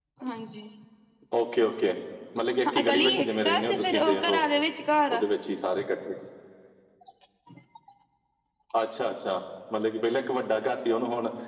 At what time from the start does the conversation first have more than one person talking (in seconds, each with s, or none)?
2.9 s